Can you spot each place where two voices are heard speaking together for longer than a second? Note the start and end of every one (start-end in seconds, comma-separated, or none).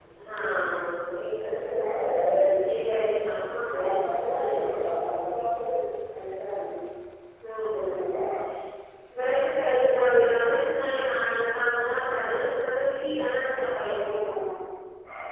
none